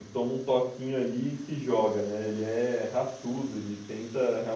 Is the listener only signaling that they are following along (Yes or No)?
Yes